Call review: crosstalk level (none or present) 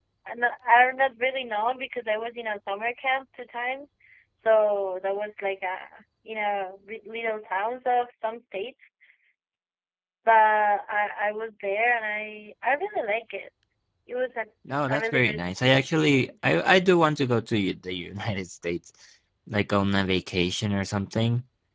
present